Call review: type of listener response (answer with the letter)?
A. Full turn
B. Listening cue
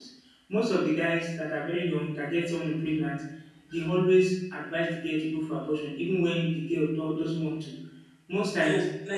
A